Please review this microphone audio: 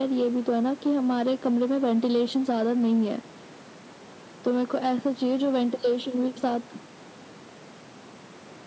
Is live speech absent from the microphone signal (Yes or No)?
Yes